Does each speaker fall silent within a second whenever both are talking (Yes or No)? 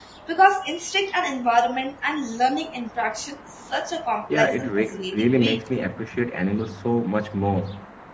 No